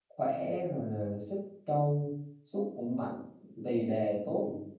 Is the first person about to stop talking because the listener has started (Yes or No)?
No